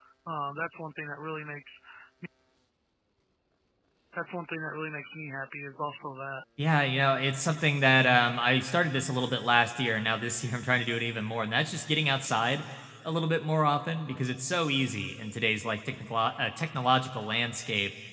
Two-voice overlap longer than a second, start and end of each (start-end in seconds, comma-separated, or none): none